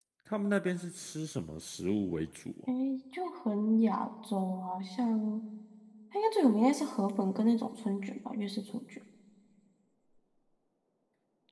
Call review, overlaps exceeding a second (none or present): none